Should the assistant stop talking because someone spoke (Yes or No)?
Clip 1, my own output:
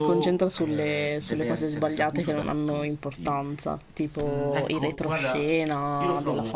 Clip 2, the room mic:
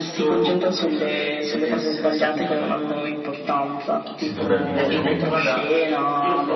Yes